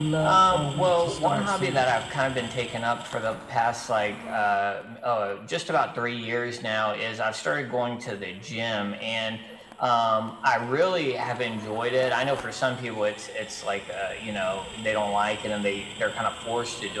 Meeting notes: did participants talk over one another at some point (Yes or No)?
Yes